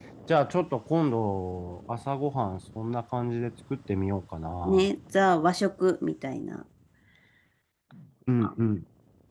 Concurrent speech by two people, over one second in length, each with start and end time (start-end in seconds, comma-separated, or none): none